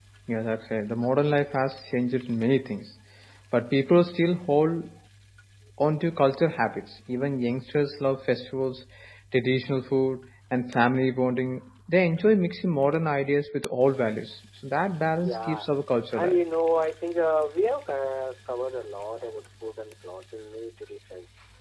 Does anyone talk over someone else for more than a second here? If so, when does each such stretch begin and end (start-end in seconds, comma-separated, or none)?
none